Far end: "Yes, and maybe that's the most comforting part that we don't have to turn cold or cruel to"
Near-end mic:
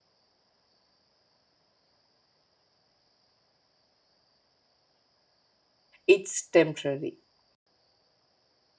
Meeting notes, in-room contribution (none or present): present